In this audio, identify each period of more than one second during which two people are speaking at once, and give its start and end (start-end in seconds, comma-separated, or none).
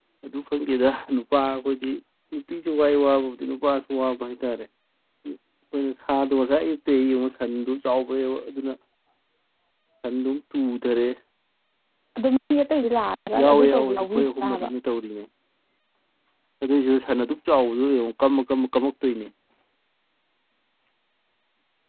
13.4-14.7